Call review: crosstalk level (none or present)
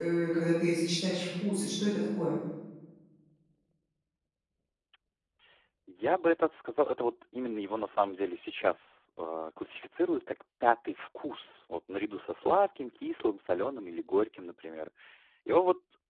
none